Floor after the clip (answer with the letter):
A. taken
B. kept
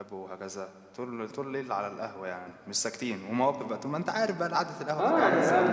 A